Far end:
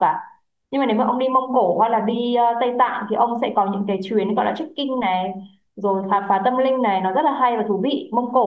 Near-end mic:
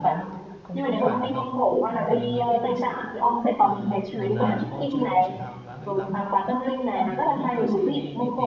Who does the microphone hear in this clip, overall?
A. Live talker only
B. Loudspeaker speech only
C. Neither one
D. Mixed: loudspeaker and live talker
D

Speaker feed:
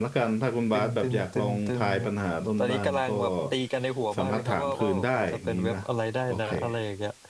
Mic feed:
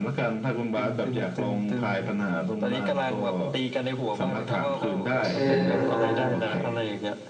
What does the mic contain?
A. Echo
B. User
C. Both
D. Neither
C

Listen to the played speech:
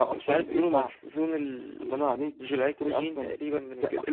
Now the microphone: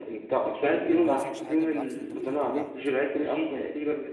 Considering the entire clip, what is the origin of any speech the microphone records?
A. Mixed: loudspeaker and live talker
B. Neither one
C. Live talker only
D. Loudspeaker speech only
A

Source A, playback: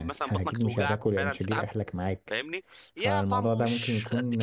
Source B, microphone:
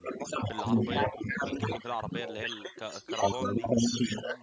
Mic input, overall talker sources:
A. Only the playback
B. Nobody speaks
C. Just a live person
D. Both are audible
D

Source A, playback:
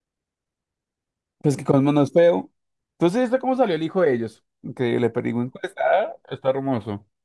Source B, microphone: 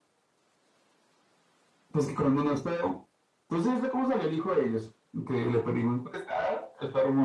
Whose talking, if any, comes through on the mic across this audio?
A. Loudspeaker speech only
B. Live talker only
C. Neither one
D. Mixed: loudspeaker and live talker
A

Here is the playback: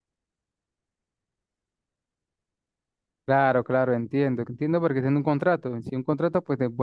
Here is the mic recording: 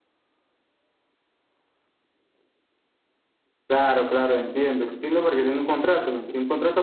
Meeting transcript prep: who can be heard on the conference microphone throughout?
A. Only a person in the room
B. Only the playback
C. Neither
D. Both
B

